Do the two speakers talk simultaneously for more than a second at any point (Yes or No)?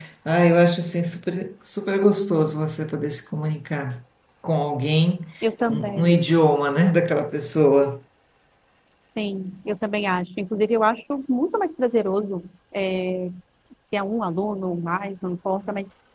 No